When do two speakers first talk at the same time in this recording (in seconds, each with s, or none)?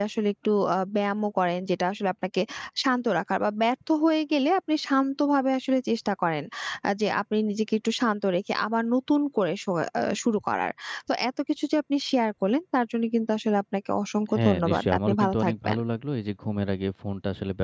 14.3 s